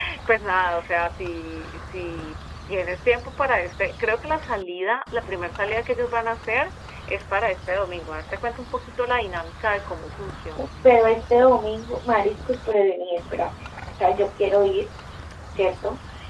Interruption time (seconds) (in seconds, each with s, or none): none